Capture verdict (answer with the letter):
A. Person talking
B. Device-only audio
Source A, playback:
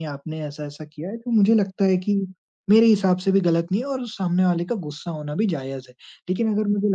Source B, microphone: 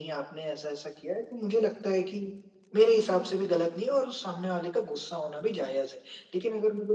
A